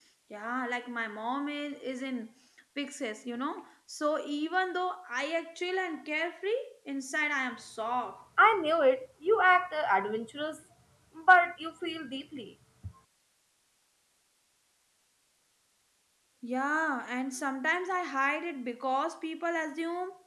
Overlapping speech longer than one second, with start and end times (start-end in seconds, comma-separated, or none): none